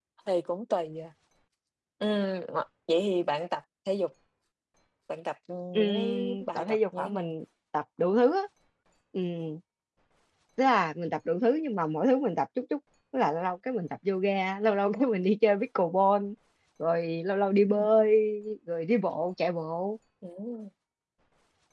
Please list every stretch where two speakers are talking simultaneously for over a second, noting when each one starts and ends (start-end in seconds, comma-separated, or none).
5.8-7.3